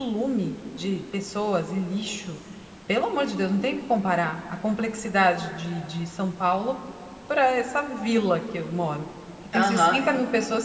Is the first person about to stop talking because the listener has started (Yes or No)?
No